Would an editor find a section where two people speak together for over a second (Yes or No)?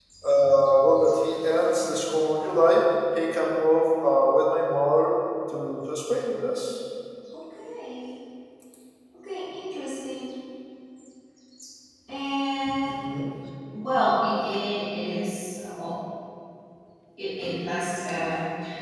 No